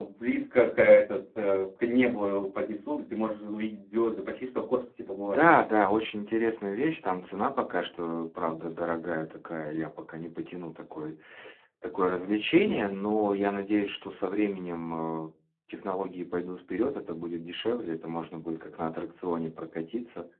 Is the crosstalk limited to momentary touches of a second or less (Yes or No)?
Yes